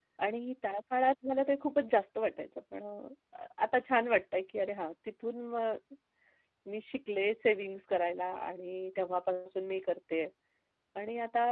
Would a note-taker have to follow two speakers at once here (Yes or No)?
No